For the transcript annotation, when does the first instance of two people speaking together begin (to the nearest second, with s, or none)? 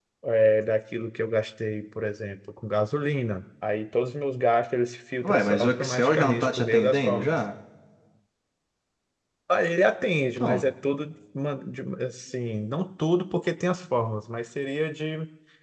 5 s